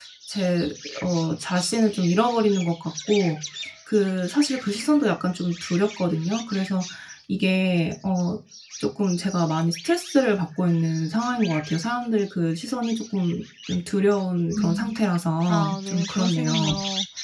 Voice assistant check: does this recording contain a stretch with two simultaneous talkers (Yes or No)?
Yes